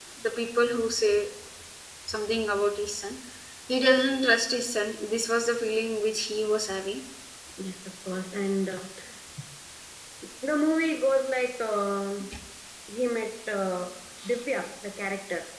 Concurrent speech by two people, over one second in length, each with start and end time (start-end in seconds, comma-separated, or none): none